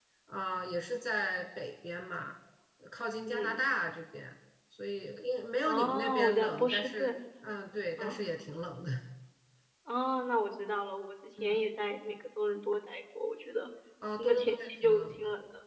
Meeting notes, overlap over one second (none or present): present